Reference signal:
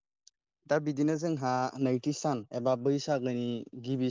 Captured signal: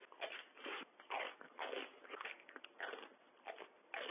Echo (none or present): none